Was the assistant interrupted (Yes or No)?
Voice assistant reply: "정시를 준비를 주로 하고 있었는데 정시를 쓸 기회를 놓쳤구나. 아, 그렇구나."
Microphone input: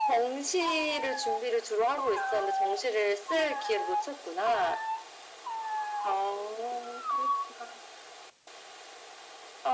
No